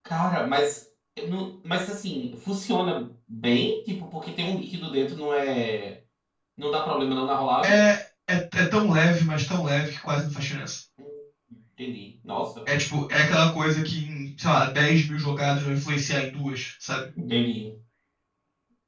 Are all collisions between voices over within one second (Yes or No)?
Yes